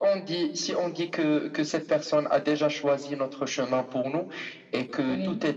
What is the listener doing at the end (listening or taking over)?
listening